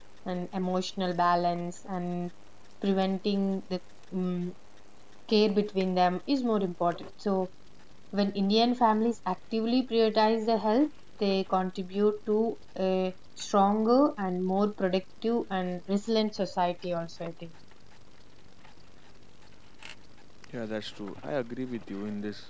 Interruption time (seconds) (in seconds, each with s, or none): none